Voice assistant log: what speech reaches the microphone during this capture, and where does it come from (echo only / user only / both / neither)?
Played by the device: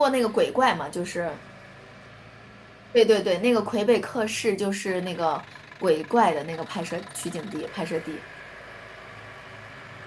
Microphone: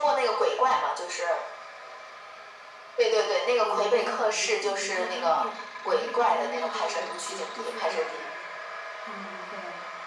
both